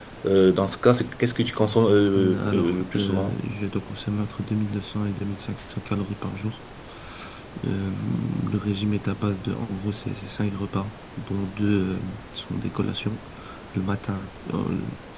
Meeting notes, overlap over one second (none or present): present